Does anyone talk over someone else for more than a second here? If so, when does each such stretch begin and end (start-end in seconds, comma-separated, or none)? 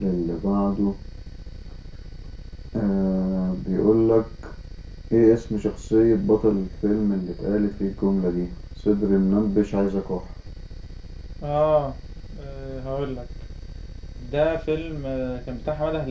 none